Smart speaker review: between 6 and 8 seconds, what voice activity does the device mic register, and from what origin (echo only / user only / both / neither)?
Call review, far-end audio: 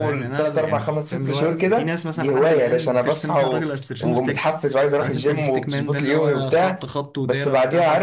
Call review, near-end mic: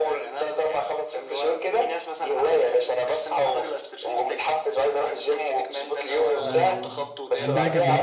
both